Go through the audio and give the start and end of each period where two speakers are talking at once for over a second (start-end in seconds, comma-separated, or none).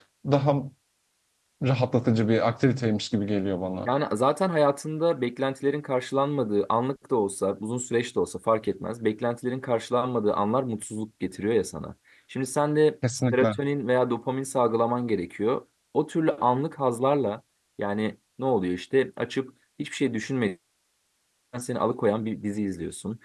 none